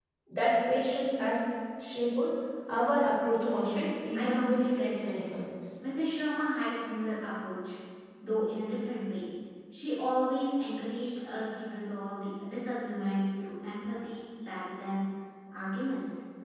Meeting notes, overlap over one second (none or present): present